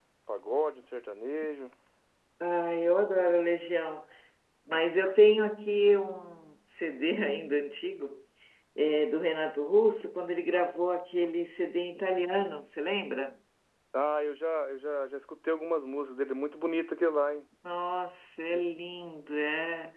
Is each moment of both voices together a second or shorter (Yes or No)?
Yes